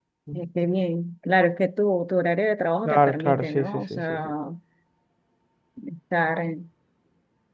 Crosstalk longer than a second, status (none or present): present